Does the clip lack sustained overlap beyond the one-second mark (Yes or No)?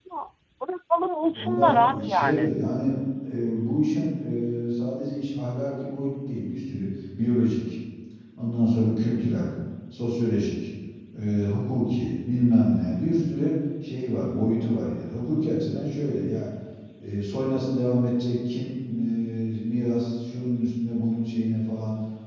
No